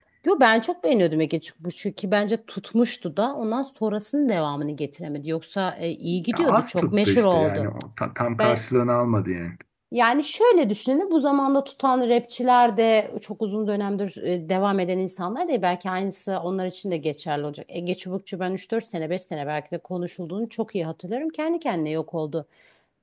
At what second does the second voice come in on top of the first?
6.3 s

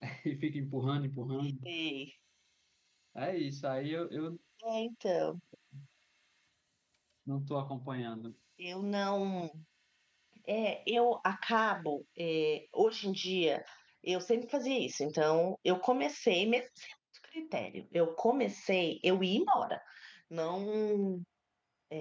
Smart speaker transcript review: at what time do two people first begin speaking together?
none

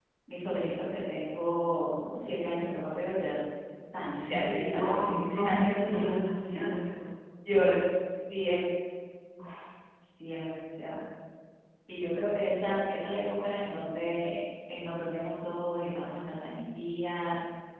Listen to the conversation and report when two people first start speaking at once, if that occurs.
4.1 s

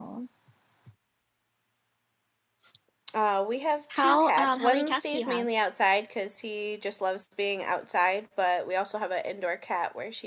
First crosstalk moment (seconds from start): 4.0 s

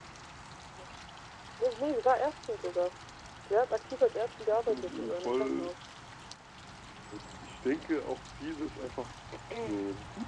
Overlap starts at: 3.9 s

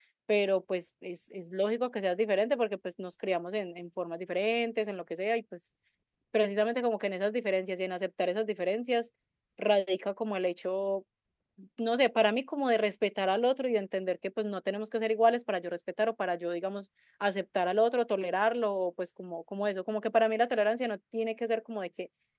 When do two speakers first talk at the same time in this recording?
none

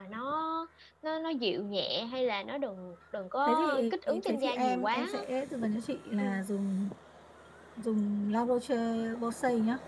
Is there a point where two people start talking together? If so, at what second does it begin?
3.5 s

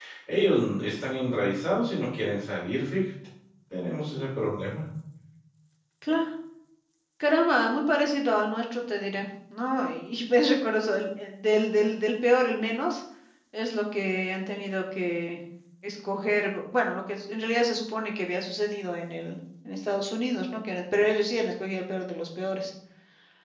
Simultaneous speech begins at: none

